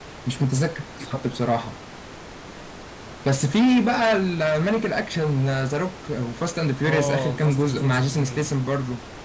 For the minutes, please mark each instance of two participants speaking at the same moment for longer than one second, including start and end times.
6.8-8.5

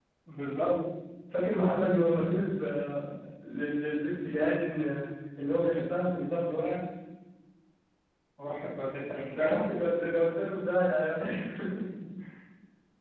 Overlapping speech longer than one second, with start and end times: none

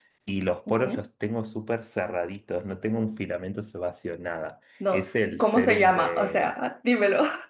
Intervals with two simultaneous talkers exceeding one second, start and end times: 4.9-6.5

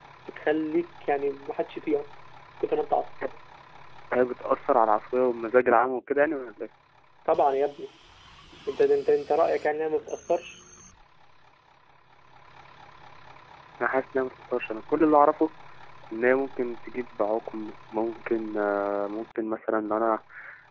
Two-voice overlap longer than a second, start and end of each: none

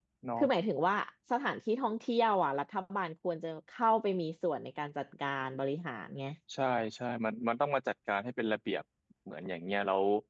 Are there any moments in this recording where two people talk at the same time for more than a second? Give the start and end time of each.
none

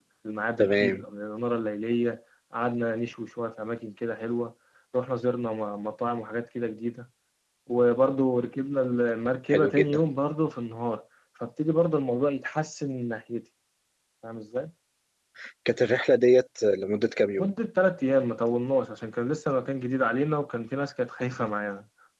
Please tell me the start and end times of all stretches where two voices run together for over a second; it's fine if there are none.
none

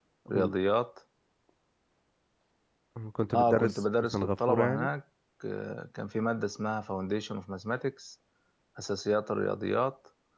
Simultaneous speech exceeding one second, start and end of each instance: 3.3-4.9

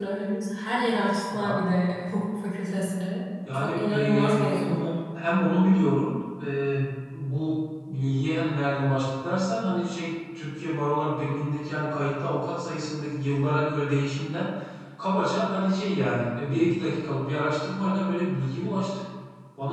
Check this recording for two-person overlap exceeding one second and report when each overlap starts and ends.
3.5-4.9

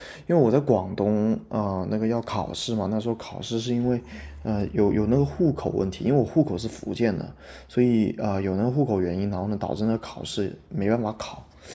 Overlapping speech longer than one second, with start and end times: none

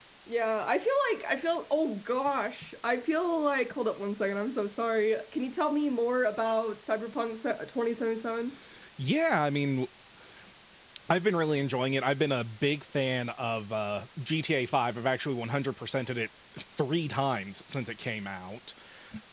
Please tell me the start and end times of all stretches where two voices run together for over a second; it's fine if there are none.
none

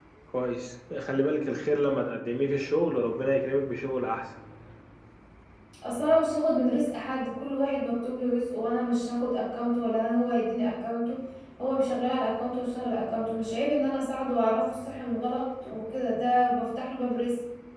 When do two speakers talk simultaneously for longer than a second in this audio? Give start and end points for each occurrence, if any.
none

